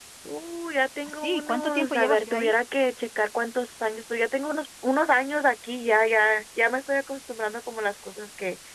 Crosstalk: present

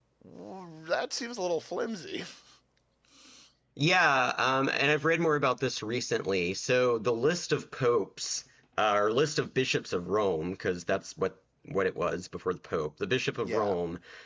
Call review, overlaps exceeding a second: none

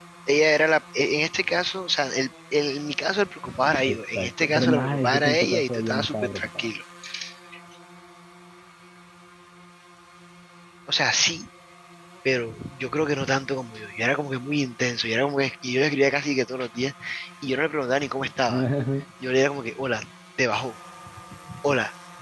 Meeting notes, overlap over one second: present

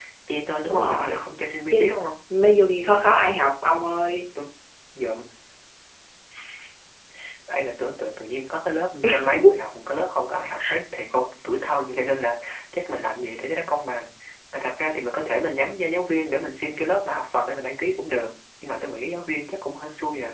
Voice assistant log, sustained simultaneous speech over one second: none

